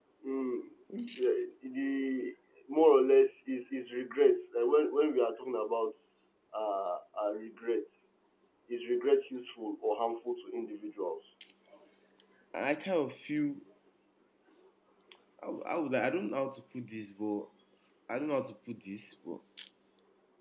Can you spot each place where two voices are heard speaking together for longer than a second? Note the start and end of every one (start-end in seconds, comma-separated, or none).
none